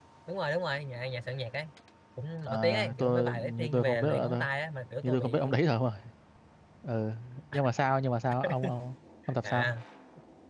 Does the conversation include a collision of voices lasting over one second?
Yes, from 2.5 s

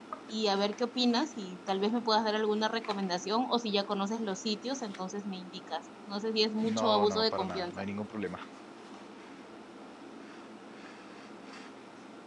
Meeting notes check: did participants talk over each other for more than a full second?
Yes, from 6.6 s

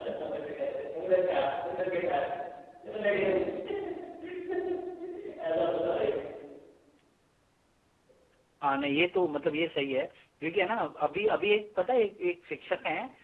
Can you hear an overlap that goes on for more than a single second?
No

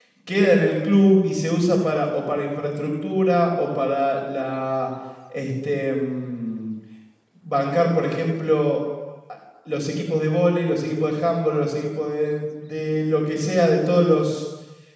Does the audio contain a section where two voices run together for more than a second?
No

